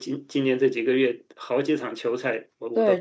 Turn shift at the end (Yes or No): Yes